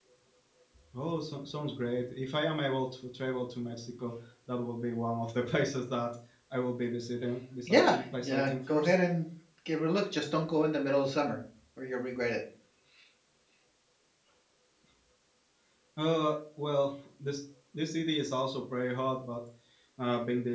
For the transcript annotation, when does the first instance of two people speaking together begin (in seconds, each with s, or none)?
7.7 s